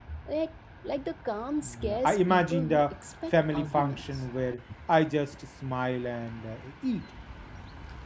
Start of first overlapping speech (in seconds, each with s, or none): 1.6 s